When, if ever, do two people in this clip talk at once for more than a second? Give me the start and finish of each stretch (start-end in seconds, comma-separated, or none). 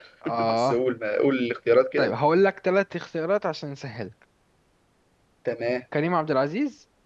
none